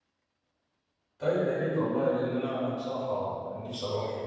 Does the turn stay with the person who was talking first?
No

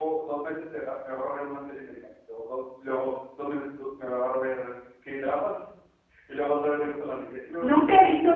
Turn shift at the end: Yes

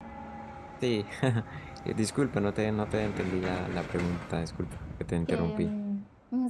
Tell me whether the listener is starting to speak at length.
Yes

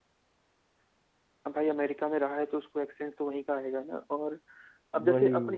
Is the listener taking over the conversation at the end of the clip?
No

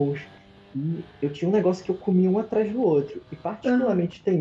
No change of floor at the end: Yes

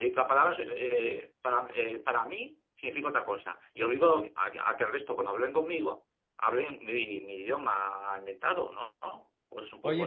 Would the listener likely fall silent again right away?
No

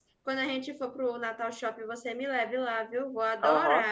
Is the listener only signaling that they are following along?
No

